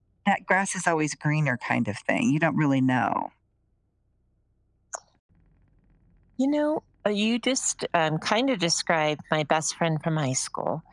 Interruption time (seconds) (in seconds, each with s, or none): none